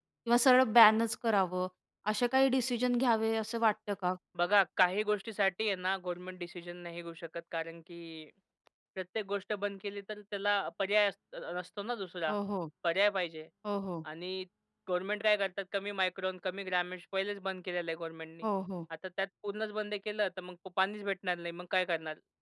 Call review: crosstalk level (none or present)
none